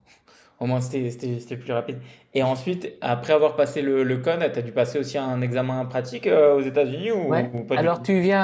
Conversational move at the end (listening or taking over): taking over